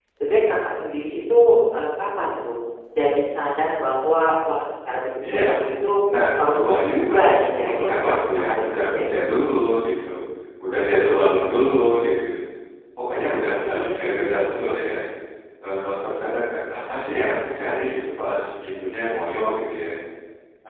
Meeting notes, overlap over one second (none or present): present